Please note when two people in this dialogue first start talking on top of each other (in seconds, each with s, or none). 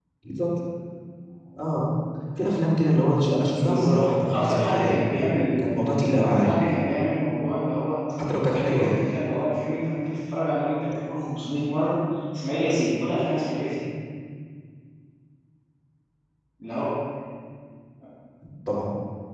3.6 s